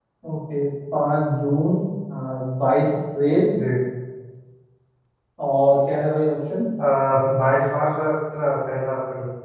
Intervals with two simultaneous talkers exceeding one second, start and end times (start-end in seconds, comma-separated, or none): none